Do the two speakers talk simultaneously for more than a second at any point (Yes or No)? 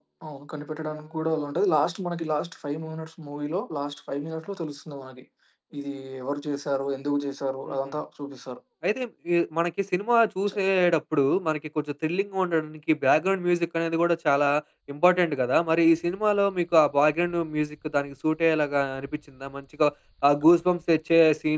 No